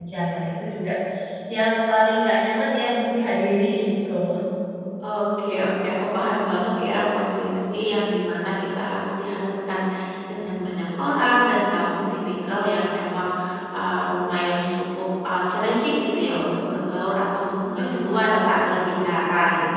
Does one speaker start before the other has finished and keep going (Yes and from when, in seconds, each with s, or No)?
Yes, from 17.6 s